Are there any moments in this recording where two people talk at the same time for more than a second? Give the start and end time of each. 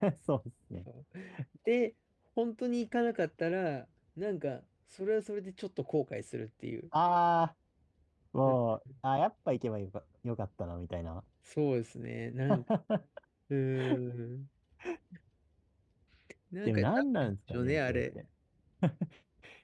16.6-18.2

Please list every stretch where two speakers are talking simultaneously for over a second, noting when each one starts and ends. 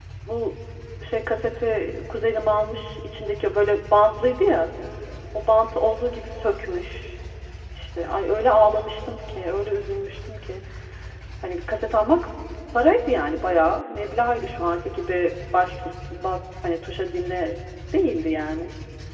none

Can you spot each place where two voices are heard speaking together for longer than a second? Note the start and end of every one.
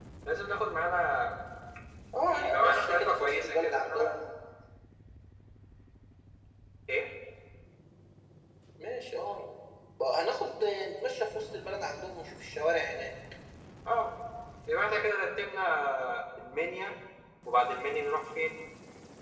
2.3-4.2

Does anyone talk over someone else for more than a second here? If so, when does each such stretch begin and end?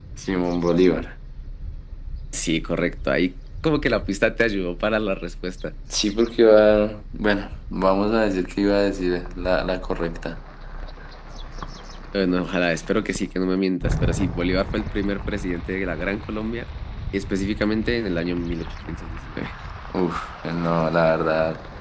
none

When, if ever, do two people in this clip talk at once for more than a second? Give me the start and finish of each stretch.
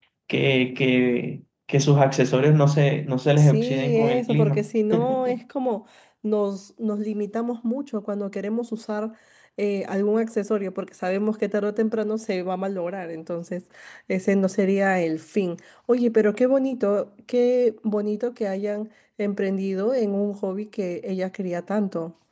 3.4-4.7

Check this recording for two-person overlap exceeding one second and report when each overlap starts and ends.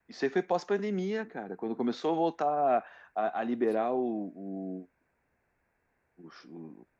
none

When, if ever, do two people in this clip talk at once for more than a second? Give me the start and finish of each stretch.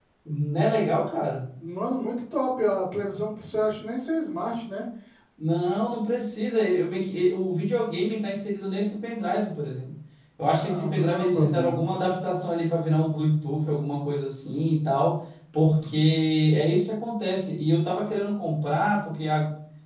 10.6-11.9

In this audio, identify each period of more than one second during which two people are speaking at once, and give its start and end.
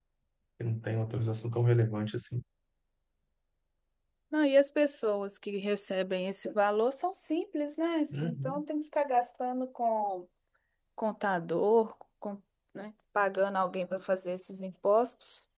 none

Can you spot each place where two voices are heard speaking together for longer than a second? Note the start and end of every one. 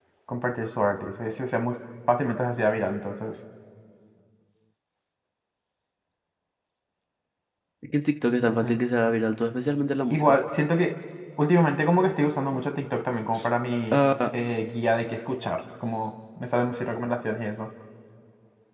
none

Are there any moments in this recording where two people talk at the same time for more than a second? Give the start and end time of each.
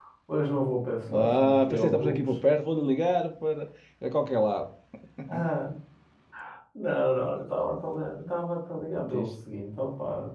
1.1-2.4

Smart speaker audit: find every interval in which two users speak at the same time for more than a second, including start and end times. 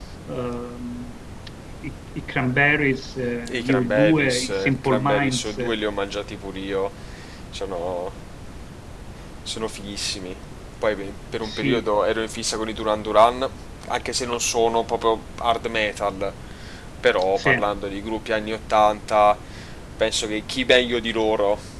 3.5-5.6

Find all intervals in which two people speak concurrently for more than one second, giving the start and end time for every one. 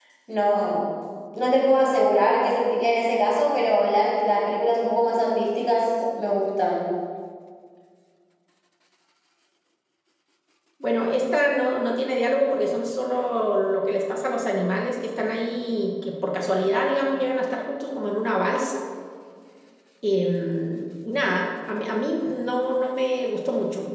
none

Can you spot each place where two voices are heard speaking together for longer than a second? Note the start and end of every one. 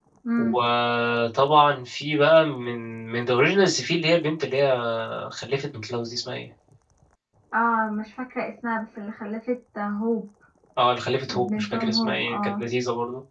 11.3-12.6

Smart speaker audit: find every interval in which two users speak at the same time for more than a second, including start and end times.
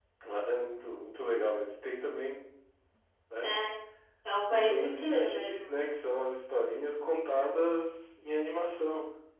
4.5-5.8

